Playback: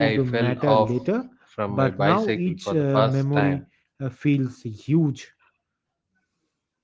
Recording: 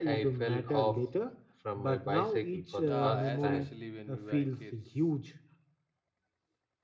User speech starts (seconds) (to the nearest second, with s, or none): 3 s